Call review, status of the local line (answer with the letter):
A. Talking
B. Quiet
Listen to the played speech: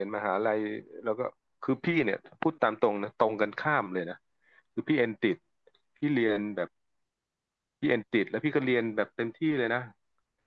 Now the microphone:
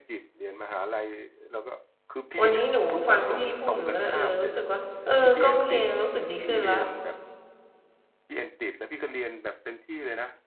A